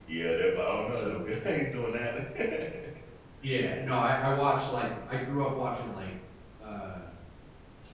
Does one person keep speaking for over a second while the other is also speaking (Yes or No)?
No